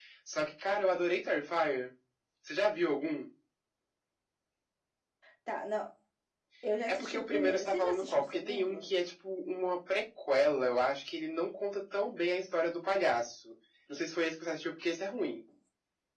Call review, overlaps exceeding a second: present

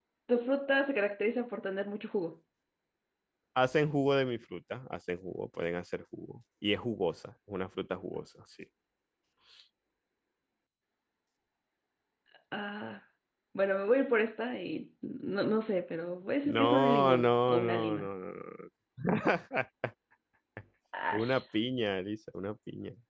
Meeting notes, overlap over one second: present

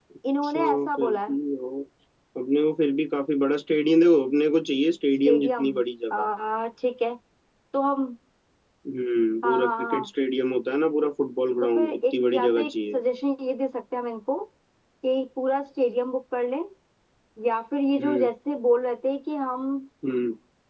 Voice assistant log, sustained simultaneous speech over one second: present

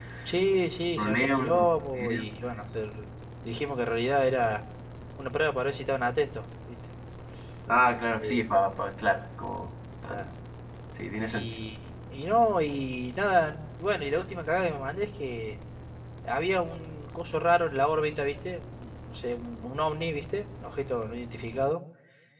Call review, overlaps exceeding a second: present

